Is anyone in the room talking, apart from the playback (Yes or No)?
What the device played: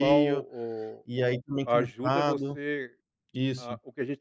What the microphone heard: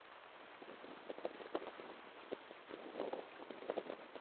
No